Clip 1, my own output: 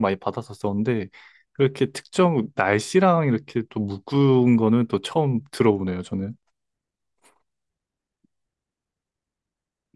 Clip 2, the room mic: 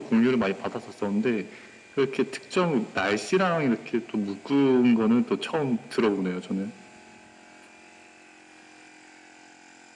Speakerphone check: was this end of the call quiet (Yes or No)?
Yes